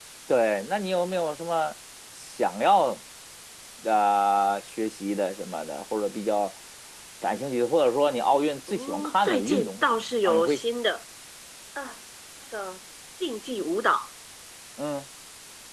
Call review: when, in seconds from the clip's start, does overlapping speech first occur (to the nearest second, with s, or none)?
9 s